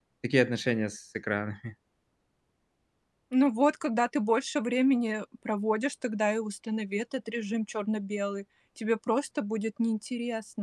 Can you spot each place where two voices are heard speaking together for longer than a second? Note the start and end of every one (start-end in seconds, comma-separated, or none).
none